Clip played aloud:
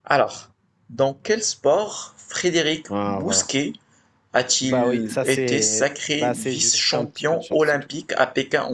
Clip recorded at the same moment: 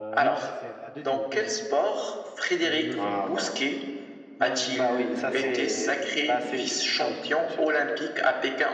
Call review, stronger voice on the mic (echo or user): echo